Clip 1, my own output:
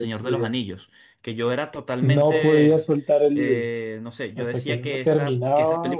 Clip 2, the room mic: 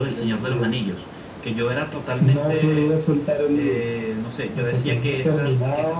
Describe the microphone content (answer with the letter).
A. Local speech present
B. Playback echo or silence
B